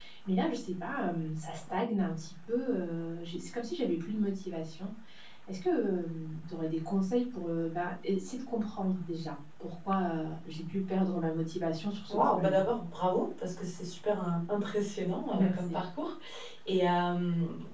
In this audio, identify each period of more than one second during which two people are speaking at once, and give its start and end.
none

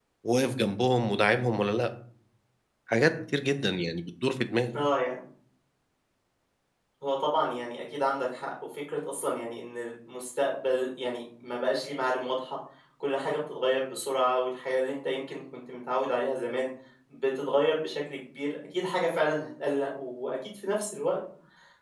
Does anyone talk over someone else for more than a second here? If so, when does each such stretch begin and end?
none

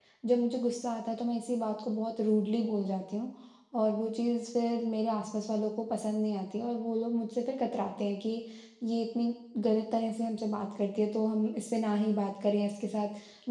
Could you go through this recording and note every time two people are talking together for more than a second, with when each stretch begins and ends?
none

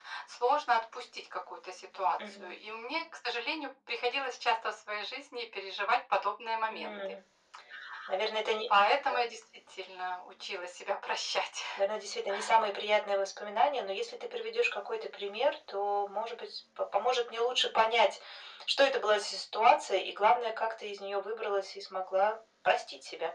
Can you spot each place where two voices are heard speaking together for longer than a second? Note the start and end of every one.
none

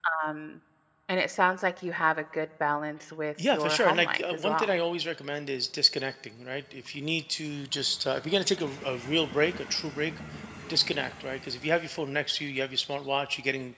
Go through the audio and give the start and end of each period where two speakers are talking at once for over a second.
3.5-4.7

